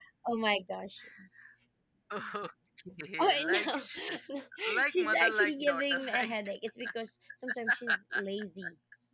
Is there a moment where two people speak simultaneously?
Yes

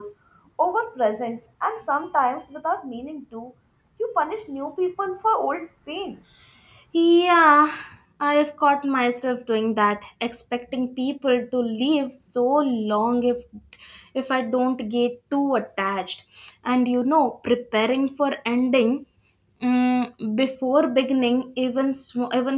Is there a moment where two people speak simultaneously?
No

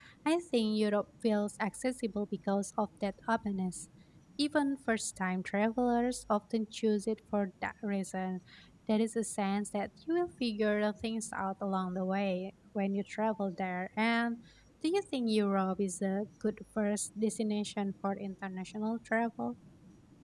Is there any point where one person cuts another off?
No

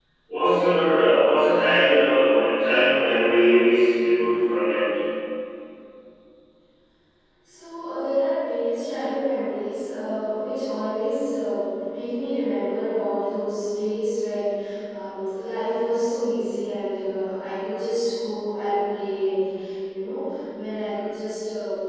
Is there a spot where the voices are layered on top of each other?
No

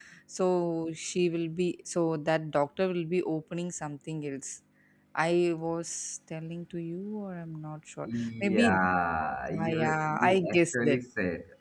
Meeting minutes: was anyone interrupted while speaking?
Yes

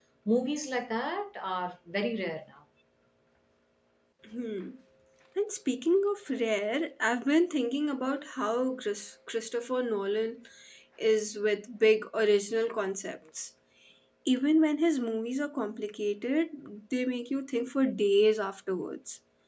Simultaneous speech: No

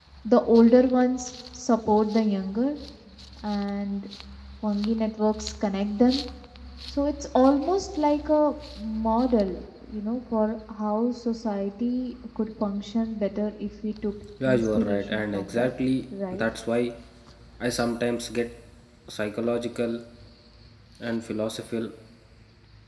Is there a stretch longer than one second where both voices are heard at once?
Yes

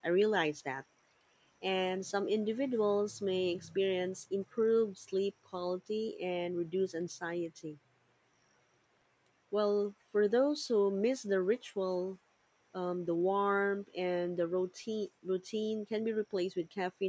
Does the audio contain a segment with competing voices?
No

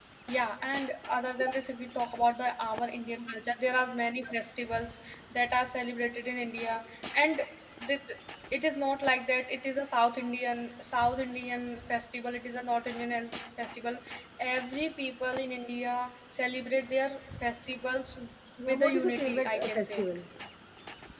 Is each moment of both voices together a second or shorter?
No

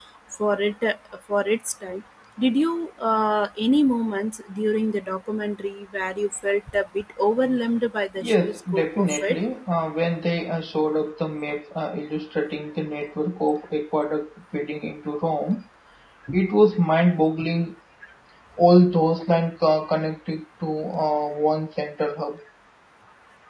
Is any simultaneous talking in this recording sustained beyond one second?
Yes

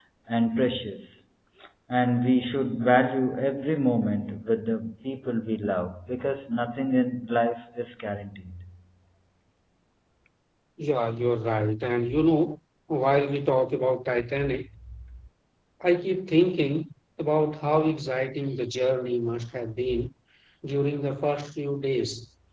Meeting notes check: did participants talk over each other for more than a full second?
No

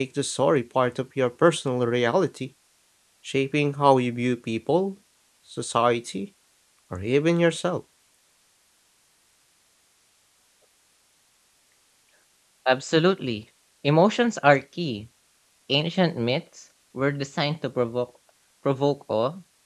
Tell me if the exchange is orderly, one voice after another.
Yes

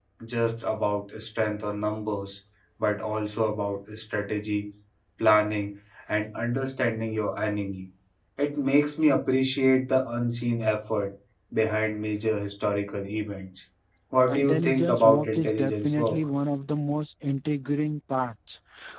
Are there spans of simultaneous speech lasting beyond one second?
Yes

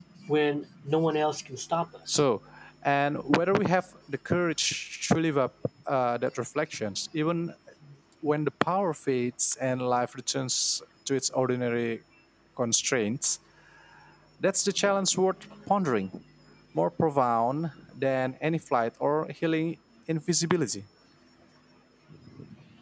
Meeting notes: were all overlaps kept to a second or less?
Yes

